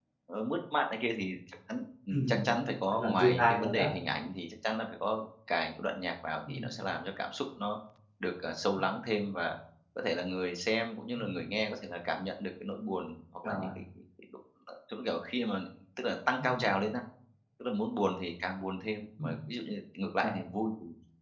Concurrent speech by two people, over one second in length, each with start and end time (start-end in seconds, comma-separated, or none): 2.1-3.8